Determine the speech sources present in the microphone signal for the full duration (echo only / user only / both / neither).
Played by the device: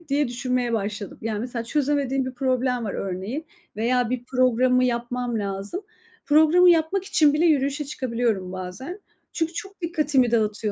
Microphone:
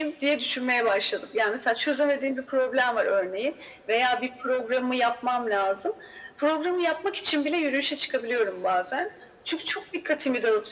echo only